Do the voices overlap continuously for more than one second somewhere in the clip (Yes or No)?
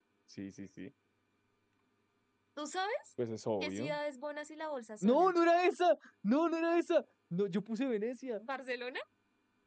No